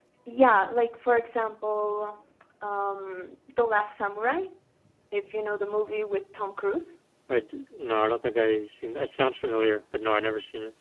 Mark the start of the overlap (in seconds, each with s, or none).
none